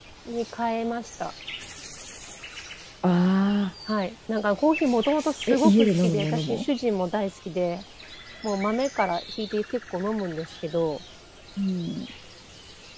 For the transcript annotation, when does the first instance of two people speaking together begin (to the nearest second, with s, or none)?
5 s